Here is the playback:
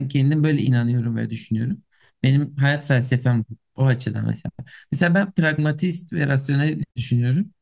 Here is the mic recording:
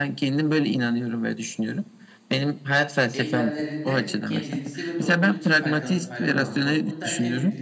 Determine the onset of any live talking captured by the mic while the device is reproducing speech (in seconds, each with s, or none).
3.1 s